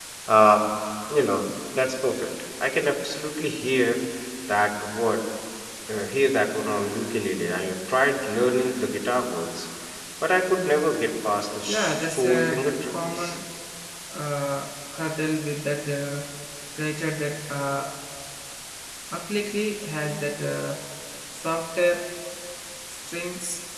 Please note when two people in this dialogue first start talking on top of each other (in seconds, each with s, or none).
11.7 s